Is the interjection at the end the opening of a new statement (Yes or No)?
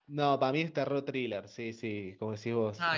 No